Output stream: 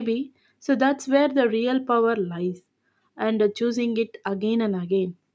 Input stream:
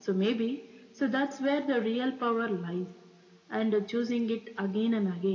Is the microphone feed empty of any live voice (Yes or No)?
Yes